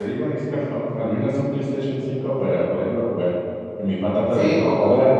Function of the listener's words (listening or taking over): taking over